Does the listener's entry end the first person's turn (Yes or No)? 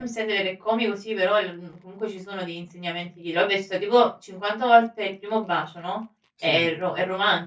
No